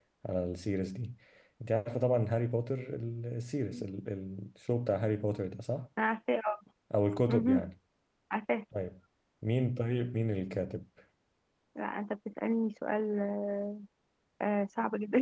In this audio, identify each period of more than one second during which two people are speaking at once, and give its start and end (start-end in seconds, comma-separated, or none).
none